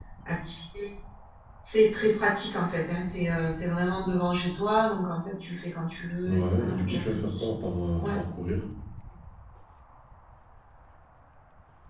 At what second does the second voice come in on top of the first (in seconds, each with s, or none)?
6.2 s